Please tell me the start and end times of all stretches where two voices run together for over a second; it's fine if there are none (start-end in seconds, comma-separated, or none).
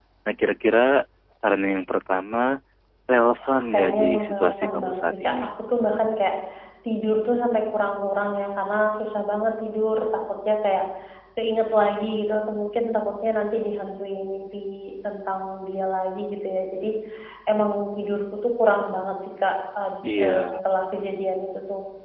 3.5-5.3